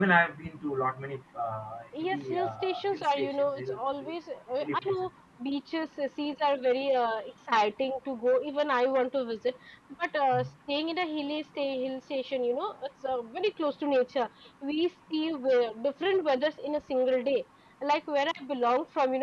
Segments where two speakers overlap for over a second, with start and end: 2.0-4.1

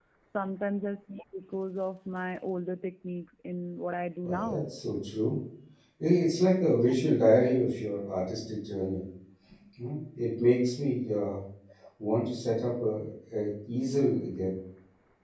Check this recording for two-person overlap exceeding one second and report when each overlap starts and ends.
none

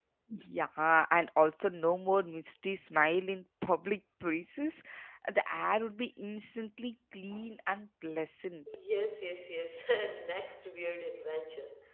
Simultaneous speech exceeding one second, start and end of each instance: none

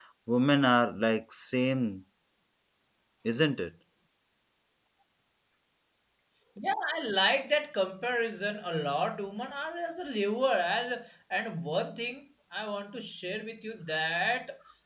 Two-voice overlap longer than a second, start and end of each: none

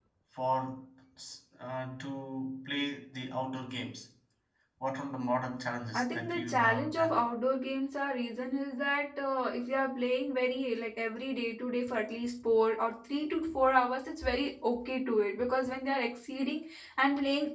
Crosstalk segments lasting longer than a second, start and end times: 5.9-7.2

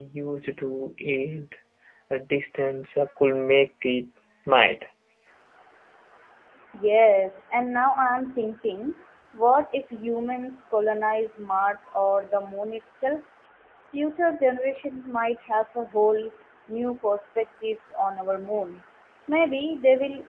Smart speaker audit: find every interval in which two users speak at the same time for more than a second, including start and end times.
none

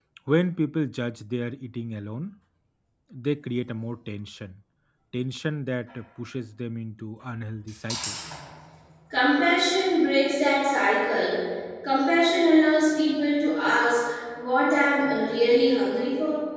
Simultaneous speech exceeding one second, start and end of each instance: none

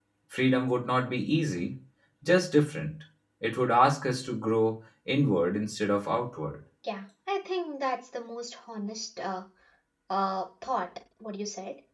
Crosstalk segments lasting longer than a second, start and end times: none

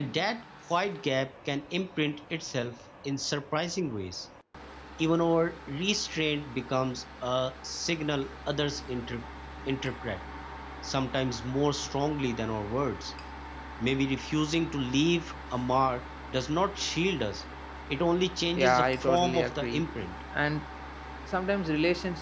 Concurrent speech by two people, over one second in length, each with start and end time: 18.6-19.9

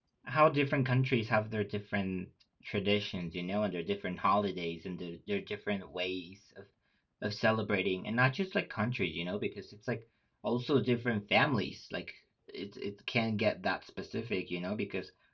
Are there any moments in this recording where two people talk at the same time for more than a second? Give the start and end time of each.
none

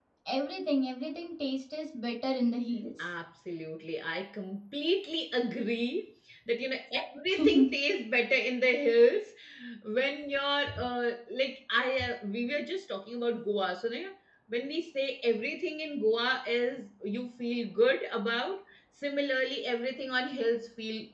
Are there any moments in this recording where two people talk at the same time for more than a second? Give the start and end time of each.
none

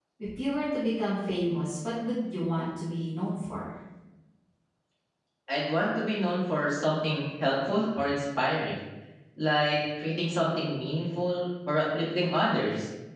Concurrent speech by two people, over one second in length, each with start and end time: none

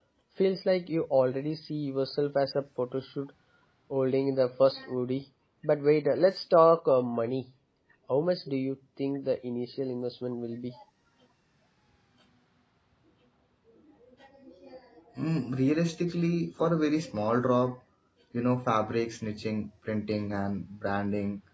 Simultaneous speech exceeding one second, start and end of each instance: none

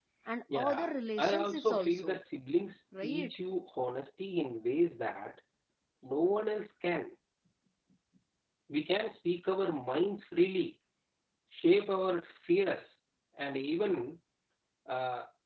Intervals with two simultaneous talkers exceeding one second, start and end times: 0.6-2.2

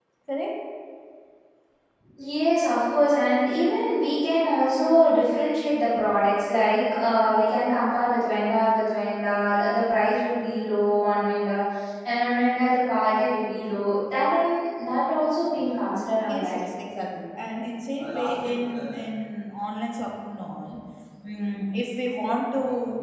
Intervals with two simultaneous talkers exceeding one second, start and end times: none

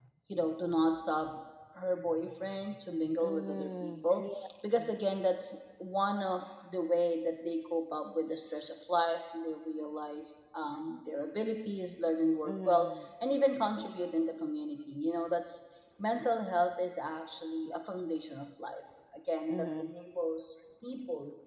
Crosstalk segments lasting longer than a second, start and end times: 3.2-4.5

